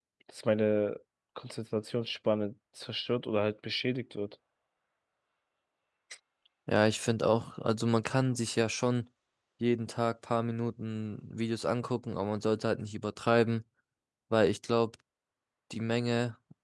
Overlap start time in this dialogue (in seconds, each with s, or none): none